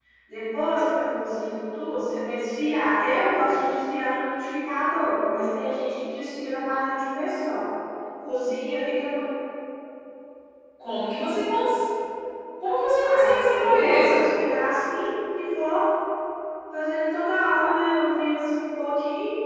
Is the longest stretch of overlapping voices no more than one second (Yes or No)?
No